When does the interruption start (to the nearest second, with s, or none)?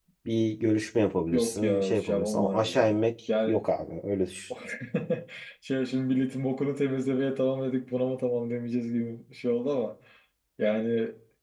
1 s